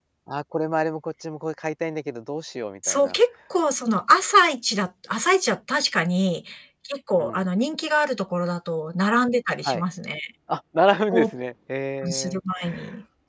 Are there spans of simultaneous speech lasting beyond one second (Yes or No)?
No